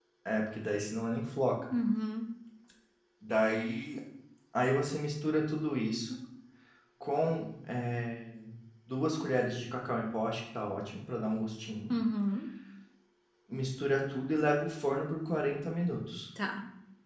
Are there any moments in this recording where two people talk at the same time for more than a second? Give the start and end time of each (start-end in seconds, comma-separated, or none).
none